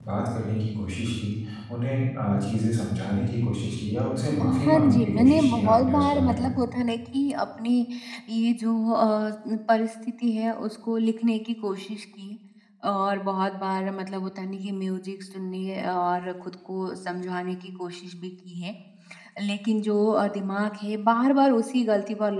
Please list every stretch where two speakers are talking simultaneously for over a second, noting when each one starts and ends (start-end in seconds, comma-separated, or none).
4.4-6.5